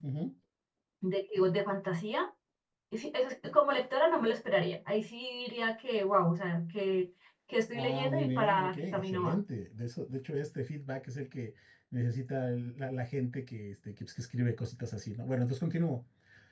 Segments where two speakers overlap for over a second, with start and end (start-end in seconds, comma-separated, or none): 7.7-9.4